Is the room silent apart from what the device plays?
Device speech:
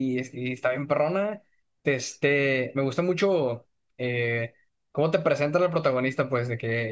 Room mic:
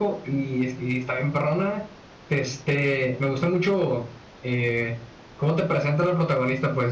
Yes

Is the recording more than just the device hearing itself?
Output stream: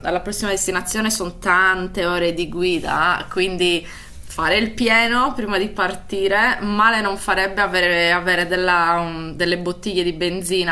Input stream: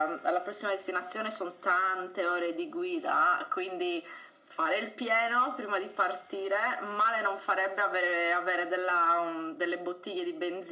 No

